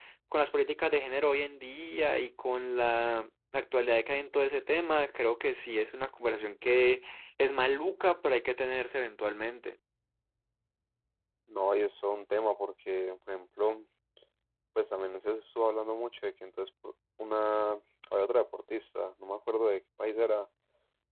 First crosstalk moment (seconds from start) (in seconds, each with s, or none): none